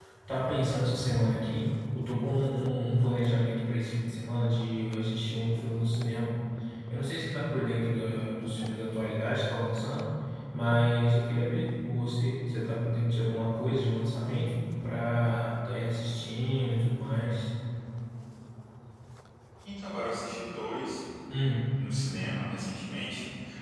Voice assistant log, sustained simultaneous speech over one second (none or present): none